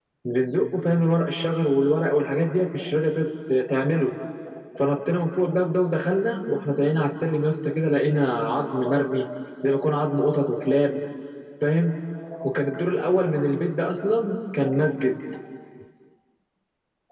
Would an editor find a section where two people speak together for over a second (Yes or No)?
No